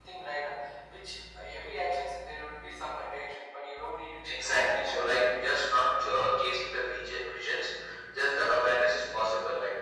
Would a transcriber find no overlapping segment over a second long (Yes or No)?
No